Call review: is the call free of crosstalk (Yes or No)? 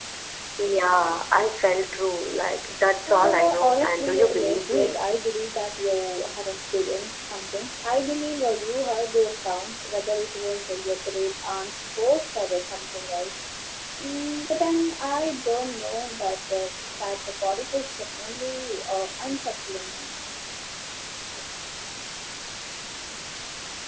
No